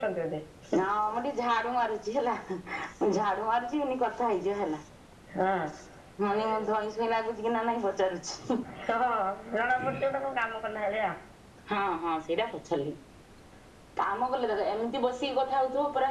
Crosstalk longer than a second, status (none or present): none